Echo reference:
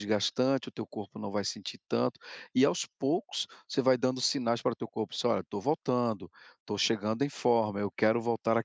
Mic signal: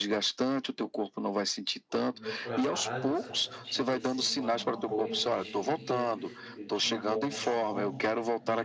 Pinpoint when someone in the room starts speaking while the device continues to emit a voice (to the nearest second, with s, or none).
2 s